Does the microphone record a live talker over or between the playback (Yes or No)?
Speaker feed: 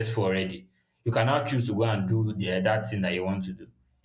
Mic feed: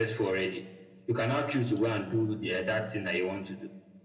No